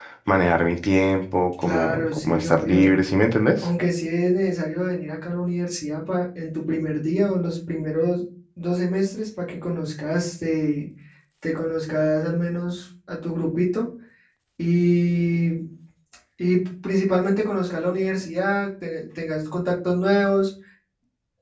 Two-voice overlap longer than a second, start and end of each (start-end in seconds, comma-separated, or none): 1.6-2.9